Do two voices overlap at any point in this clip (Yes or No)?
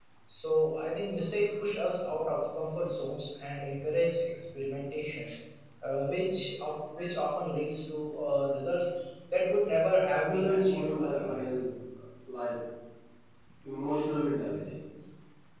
Yes